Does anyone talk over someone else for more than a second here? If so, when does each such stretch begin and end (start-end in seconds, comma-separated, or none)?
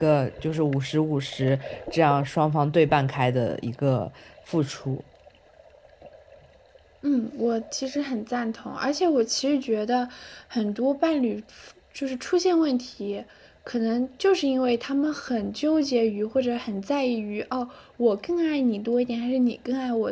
none